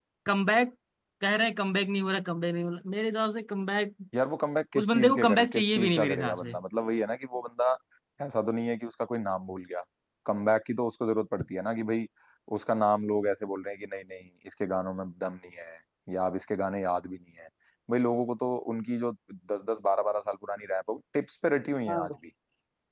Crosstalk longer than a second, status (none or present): present